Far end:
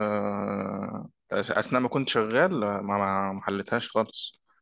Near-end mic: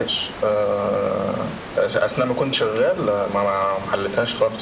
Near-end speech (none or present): none